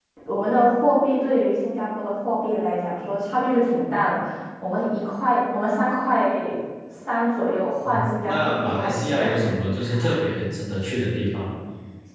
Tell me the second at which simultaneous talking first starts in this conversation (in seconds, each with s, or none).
7.8 s